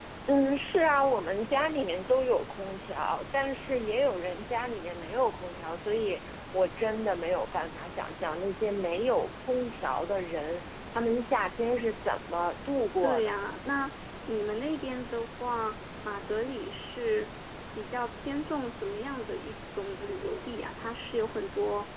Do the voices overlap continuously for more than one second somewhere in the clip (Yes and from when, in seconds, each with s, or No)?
No